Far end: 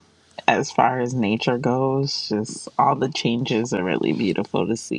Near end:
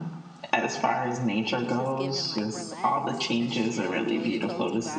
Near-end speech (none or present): present